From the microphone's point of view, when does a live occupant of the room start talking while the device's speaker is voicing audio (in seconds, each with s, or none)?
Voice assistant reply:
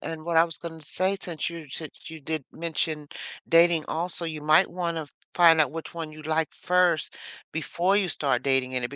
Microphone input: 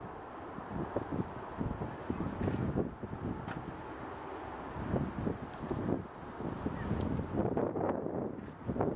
none